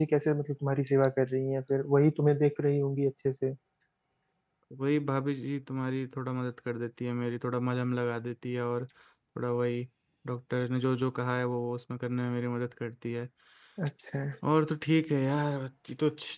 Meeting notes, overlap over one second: none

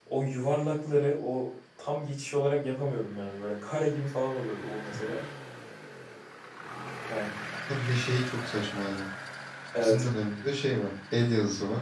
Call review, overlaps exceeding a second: none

